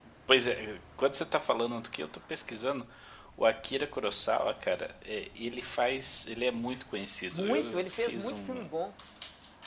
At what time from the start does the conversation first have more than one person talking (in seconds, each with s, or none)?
7.3 s